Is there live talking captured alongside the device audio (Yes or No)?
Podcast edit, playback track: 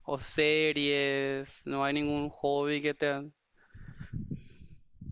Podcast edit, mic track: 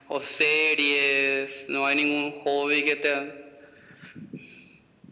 No